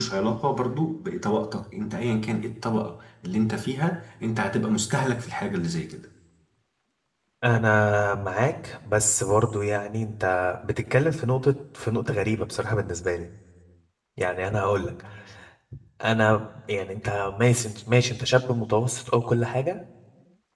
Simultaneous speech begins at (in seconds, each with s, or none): none